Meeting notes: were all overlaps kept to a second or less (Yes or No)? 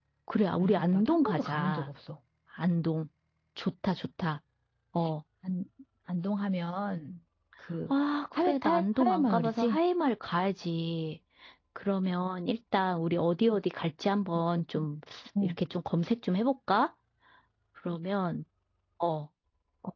No